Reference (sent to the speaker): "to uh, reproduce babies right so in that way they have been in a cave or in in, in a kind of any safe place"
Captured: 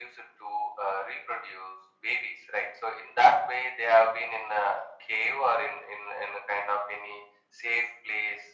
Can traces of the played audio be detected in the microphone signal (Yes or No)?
Yes